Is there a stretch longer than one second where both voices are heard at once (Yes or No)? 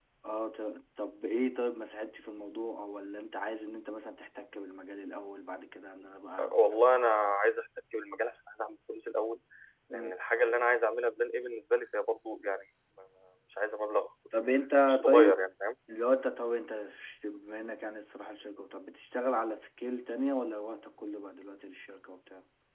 No